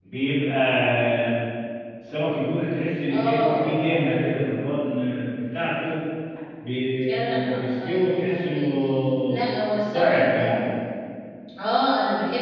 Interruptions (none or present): present